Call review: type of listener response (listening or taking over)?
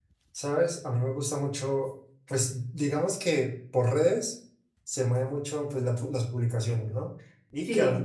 listening